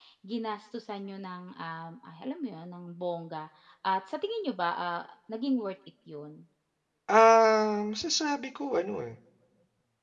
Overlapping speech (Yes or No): No